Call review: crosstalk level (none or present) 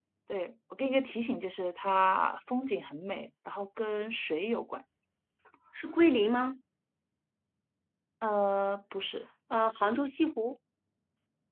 none